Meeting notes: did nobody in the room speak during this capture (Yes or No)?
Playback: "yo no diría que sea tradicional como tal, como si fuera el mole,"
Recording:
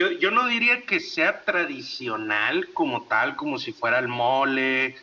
Yes